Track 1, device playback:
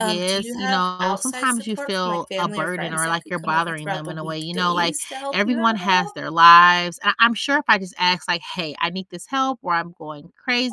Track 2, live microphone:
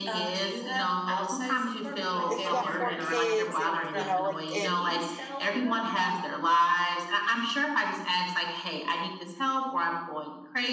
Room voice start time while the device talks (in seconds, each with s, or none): 2.3 s